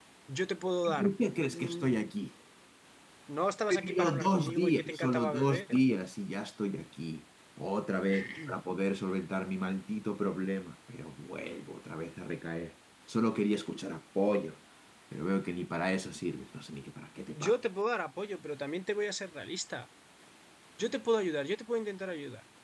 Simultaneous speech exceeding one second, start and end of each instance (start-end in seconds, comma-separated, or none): 3.7-5.8